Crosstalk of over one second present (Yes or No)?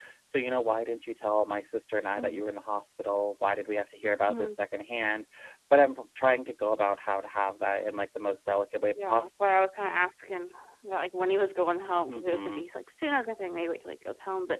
No